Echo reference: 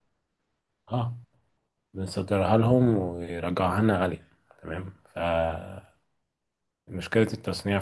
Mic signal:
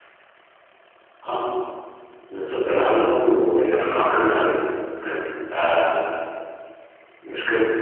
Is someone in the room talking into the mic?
Yes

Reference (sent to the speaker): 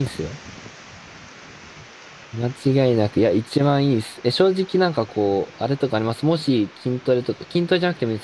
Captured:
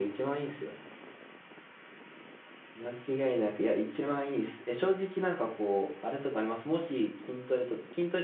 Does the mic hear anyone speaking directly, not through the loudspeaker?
No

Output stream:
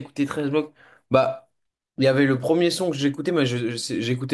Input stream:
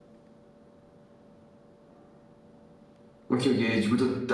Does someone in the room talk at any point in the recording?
Yes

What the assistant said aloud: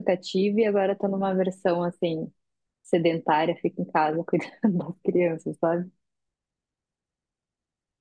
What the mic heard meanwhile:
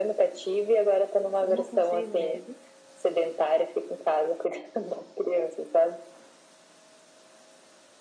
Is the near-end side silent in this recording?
No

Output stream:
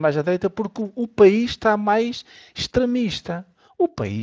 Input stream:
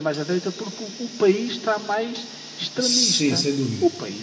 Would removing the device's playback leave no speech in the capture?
No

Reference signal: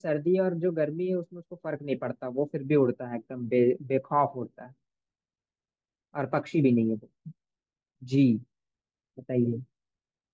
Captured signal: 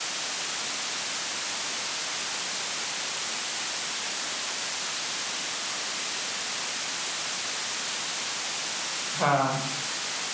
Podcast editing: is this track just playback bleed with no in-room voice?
No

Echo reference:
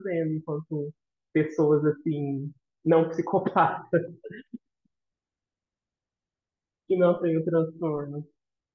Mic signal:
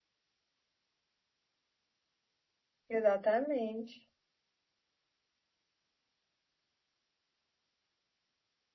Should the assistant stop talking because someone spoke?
Yes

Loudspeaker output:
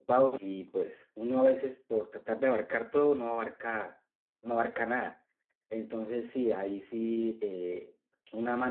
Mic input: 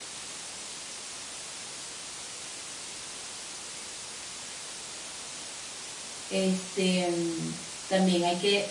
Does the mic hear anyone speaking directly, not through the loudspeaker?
Yes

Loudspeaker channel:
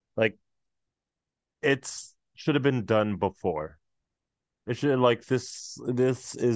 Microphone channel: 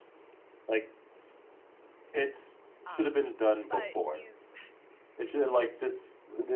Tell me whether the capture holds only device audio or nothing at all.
No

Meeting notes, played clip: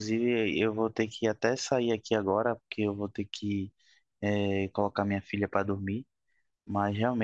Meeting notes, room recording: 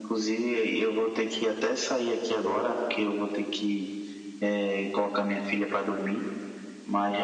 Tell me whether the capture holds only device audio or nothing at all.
Yes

